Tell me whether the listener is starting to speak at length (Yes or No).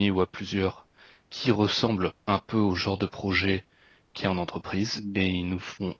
No